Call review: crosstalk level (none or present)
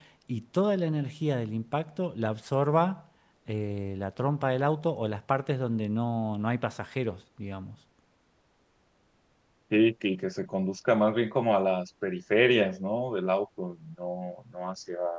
none